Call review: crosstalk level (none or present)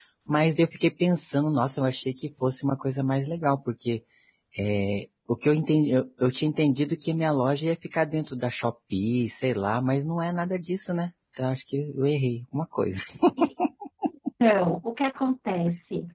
none